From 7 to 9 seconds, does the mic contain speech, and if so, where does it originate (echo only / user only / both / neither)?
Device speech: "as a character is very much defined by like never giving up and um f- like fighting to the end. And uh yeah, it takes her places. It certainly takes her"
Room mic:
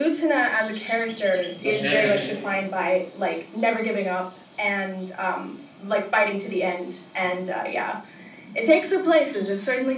echo only